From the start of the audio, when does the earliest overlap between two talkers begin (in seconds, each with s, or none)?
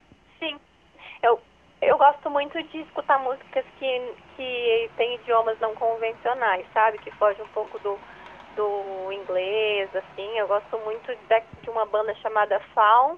none